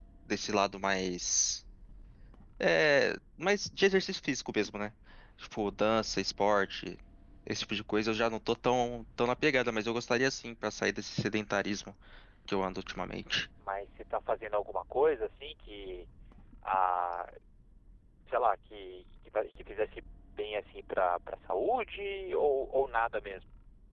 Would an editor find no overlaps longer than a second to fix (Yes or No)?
Yes